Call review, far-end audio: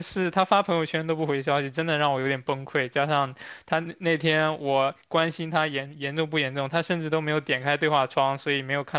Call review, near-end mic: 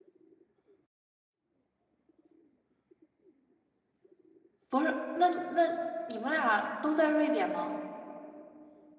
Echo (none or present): none